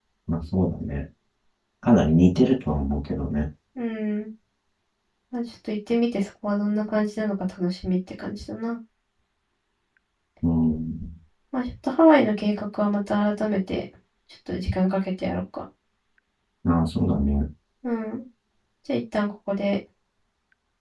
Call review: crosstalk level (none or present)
none